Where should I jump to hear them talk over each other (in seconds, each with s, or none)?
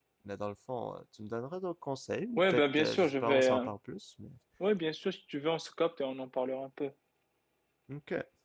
2.4 s